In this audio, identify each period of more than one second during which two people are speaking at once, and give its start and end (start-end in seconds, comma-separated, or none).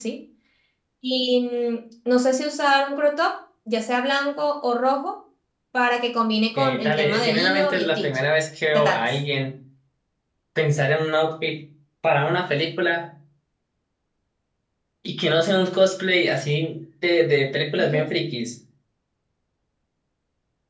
6.6-8.2